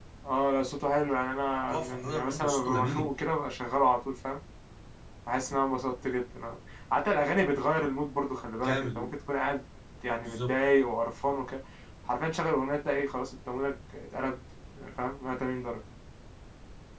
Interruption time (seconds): 1.7 s

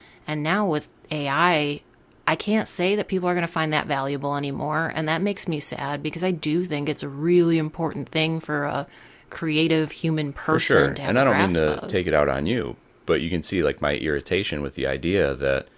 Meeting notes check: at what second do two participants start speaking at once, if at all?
10.5 s

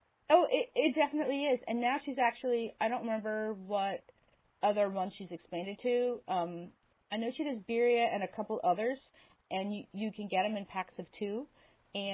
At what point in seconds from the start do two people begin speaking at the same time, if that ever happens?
none

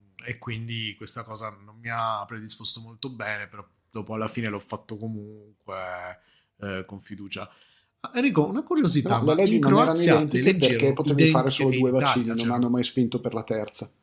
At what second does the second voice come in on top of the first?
9.0 s

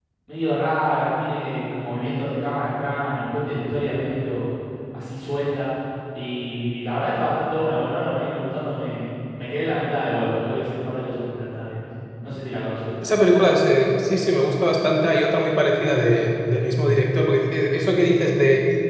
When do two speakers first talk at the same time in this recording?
none

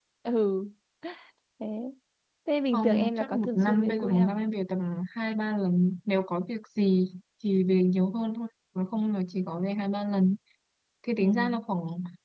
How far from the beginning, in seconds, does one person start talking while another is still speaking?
2.7 s

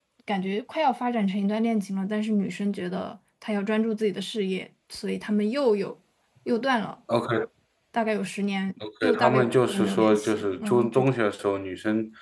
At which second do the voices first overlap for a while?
8.8 s

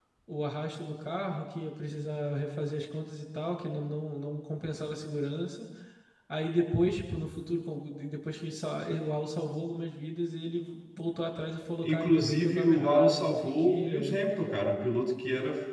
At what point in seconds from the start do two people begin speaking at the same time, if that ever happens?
11.8 s

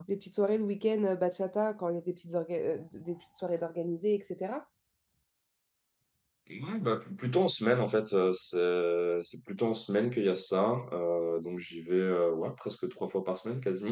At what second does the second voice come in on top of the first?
none

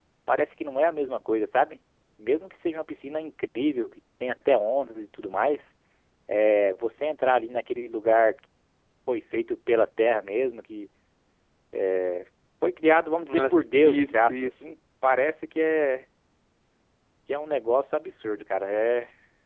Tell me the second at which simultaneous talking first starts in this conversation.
13.2 s

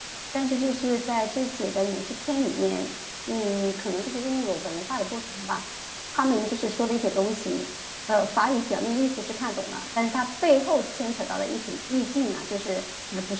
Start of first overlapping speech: none

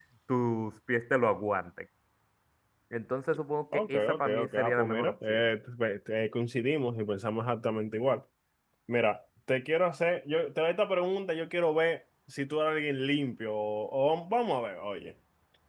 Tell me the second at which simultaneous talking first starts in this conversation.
3.7 s

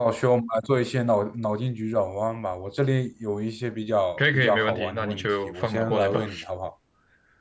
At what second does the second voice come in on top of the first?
4.2 s

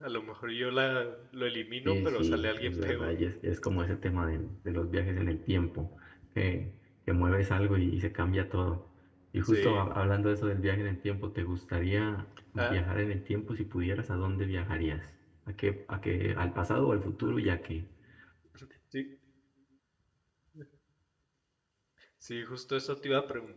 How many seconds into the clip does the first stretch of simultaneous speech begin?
1.9 s

